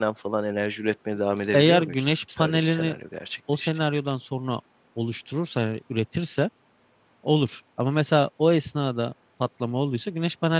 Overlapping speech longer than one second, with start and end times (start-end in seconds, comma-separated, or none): 1.5-2.9